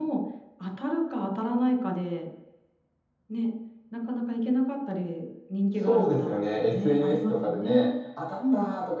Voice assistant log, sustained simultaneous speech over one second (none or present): present